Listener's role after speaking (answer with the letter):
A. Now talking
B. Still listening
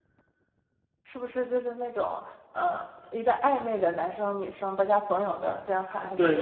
A